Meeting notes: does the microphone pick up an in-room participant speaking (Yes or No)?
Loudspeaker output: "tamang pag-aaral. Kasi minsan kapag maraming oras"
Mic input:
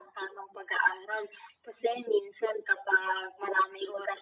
No